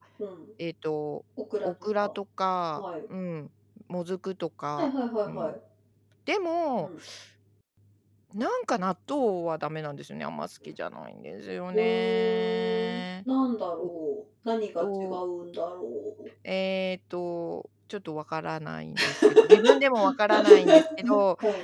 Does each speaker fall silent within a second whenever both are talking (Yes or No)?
No